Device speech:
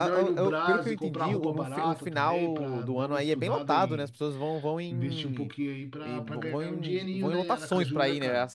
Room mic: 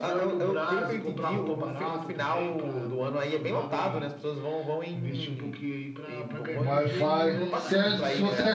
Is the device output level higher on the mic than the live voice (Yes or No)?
No